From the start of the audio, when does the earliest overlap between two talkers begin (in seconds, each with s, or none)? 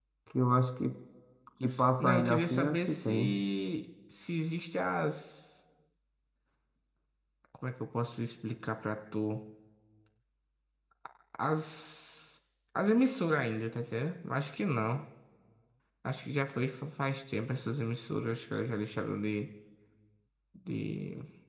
2.0 s